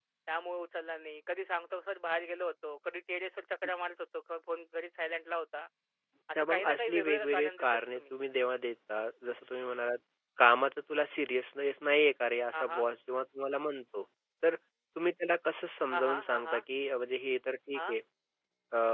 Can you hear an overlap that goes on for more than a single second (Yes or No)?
Yes